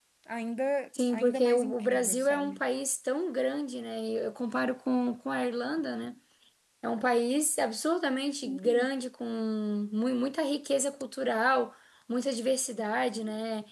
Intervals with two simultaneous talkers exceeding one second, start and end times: 1.1-2.6

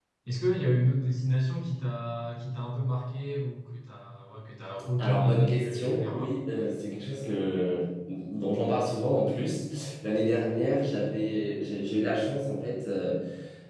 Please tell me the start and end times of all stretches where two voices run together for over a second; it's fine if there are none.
5.0-6.3

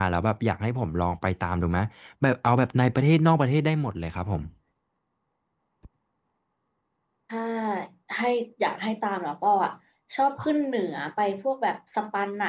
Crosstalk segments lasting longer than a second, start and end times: none

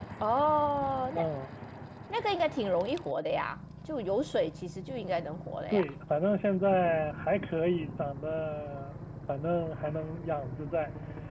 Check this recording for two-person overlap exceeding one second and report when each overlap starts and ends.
none

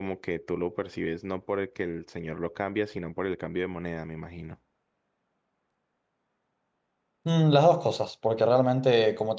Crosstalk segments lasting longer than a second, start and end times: none

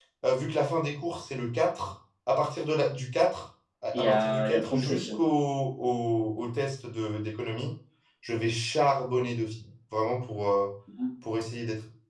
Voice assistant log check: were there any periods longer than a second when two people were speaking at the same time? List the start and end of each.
3.9-5.2

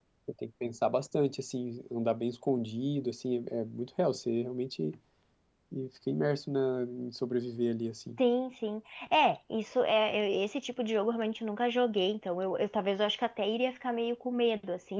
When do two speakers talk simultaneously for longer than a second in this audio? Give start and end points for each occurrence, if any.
none

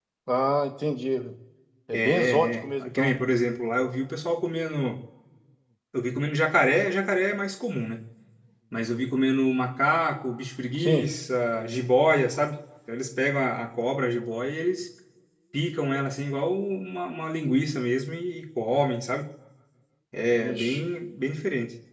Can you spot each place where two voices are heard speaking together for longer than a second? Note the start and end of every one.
1.9-3.1

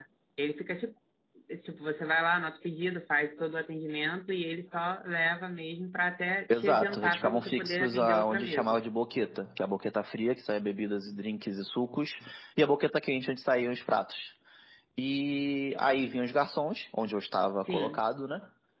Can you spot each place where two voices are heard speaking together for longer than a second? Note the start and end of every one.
6.5-8.8

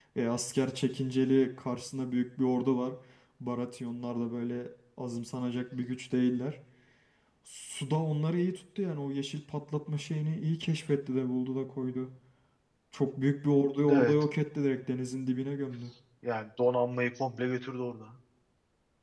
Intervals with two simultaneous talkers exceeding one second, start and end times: none

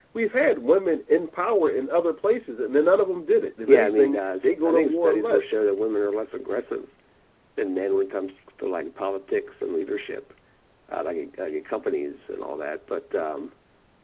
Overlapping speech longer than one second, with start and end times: 3.7-5.6

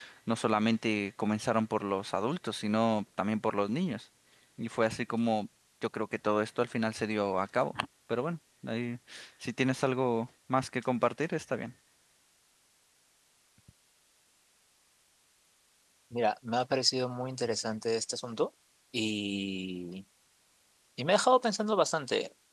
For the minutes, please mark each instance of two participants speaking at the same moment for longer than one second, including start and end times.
none

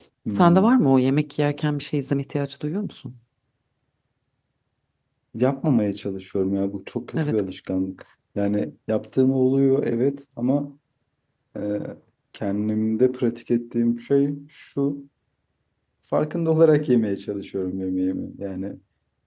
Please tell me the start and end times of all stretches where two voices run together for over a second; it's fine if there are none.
none

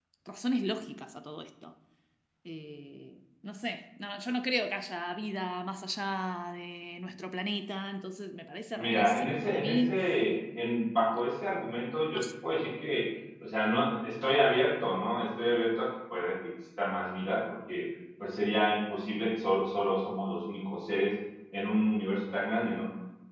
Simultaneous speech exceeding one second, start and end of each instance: 8.7-10.0

